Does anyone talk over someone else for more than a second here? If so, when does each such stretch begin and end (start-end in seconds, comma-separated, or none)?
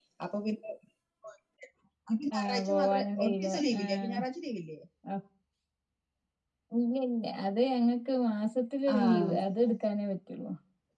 2.3-4.2